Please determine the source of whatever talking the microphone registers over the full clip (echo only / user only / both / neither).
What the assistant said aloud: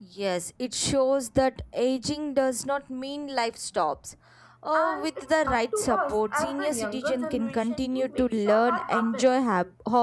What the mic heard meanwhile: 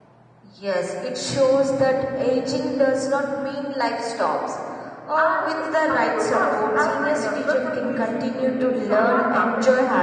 echo only